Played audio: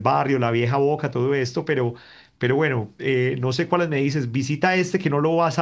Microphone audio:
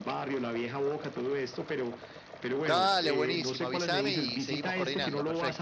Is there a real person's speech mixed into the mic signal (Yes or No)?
Yes